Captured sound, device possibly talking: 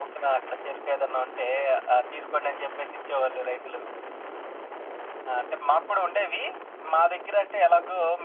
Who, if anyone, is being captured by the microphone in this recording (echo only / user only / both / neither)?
echo only